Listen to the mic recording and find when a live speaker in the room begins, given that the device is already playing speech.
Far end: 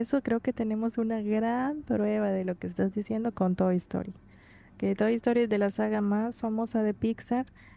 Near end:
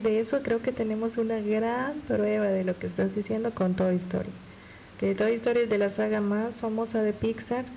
none

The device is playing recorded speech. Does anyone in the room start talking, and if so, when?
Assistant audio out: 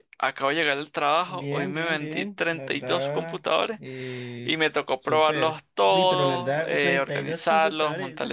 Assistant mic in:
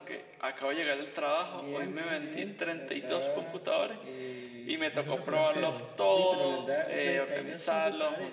4.9 s

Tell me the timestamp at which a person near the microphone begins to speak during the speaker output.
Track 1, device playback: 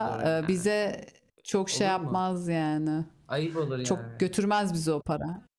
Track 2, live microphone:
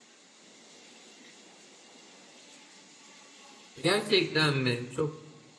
3.8 s

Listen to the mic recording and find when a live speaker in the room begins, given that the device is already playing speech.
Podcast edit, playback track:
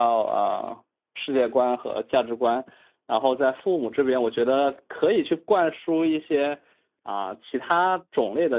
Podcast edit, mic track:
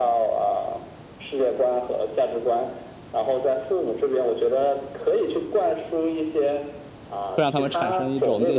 7.2 s

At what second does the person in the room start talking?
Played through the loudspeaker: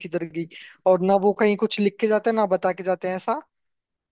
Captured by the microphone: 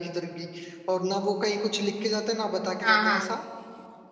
2.8 s

